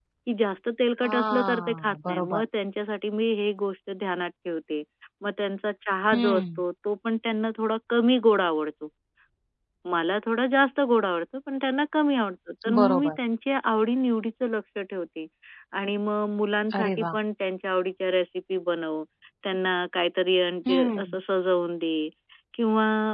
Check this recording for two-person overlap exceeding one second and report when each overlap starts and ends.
1.0-2.4

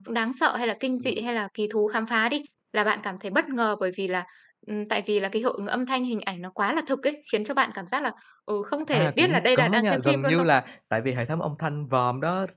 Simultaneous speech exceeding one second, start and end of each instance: 8.9-10.5

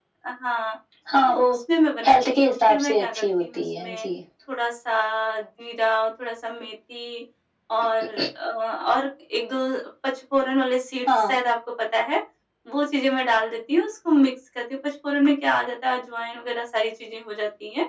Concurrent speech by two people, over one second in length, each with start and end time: 2.0-4.1

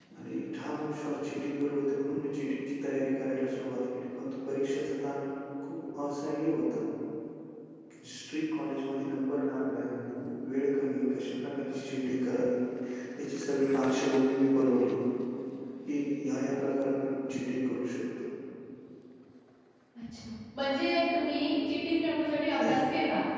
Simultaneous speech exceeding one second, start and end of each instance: none

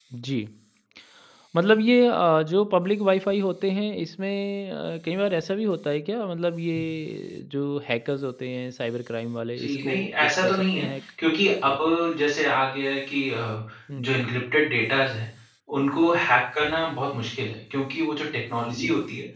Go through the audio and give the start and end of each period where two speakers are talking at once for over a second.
9.6-10.9

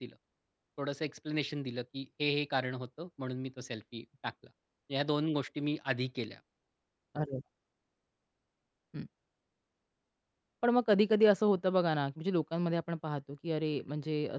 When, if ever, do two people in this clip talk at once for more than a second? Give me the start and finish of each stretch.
none

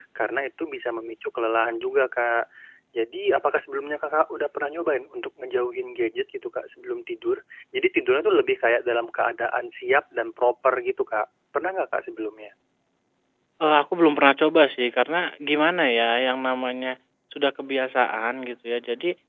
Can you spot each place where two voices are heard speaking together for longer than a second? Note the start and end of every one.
none

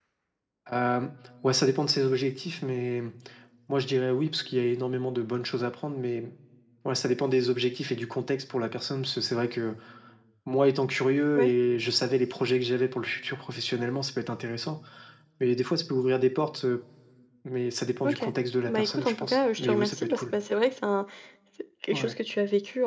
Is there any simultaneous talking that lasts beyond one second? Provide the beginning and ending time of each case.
18.7-20.2

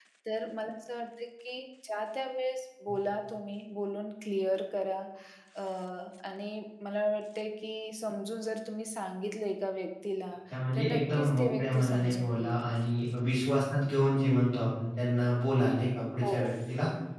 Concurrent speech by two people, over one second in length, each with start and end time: 10.8-12.6

